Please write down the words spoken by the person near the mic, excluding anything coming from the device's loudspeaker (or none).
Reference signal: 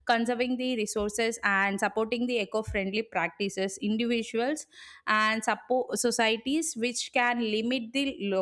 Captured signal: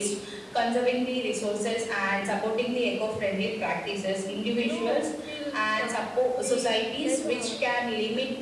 you know feel uh, they like uh,